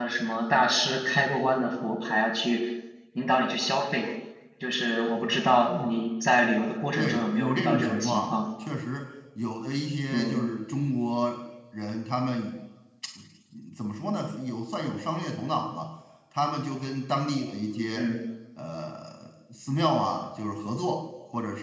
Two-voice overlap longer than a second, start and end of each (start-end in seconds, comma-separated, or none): 7.0-8.4